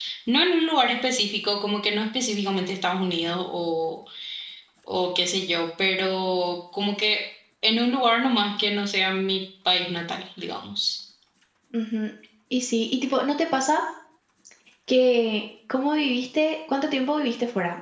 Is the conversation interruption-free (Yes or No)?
Yes